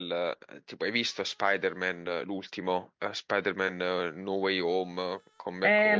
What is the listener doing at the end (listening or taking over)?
taking over